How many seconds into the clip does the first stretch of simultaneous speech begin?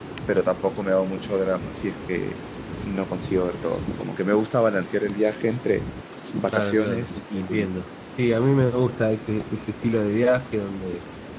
6.5 s

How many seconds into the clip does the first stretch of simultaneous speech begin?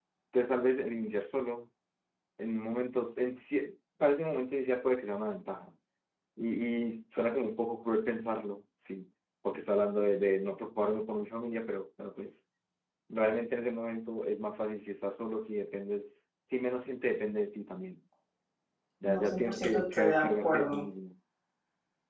19.0 s

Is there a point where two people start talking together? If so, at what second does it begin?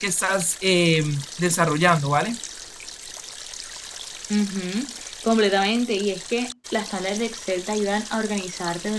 none

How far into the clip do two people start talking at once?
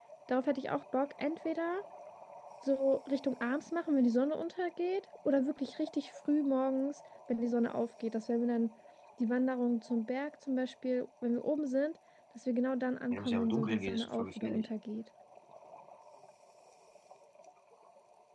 13.1 s

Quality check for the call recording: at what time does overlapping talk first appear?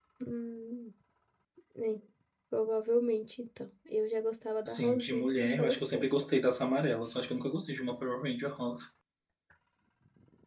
4.6 s

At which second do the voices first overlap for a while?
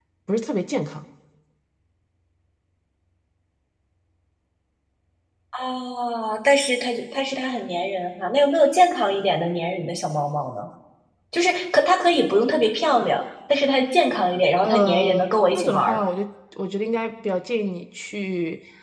14.6 s

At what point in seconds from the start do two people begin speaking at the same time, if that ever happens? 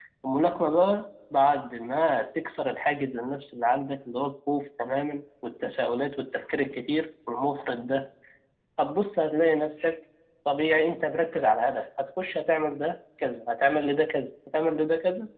none

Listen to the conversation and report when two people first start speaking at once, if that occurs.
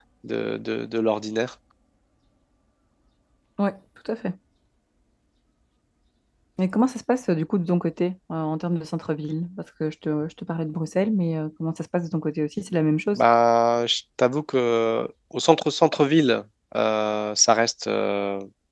none

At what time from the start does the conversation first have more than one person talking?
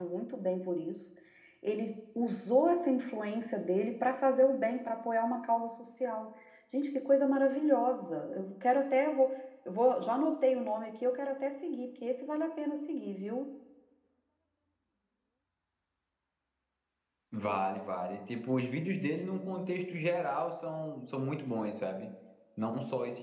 none

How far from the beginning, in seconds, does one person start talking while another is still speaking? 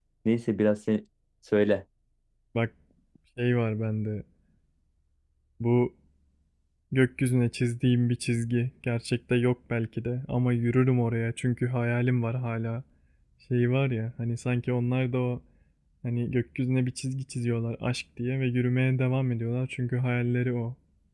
none

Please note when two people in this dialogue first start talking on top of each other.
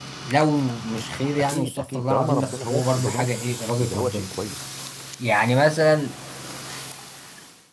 1.4 s

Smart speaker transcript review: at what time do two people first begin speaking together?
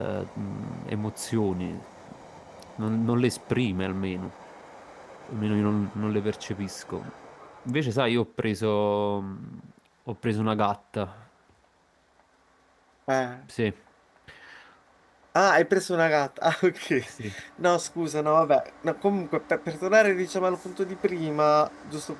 none

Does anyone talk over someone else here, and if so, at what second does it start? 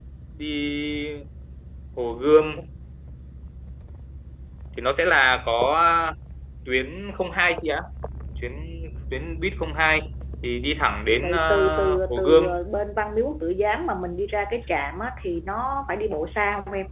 11.2 s

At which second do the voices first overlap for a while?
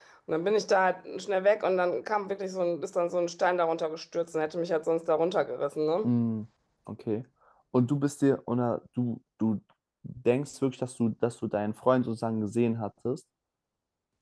none

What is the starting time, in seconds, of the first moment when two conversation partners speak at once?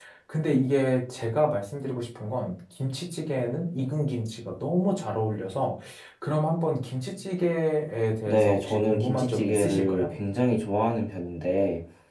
8.3 s

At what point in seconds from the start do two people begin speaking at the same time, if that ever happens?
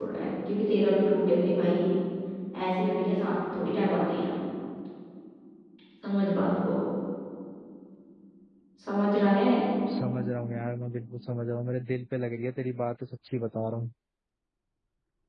none

